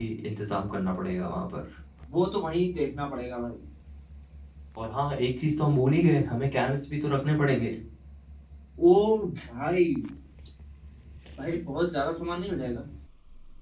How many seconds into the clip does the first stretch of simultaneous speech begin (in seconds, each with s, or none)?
none